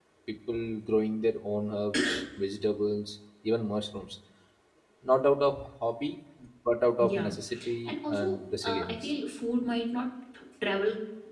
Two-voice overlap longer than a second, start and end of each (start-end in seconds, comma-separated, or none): 7.8-9.1